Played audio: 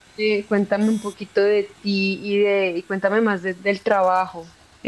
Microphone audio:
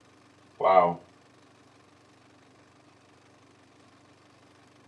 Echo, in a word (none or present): none